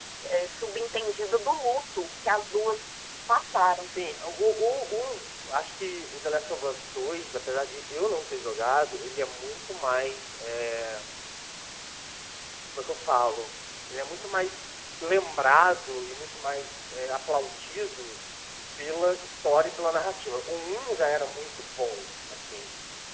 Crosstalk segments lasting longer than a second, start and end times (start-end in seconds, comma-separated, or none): none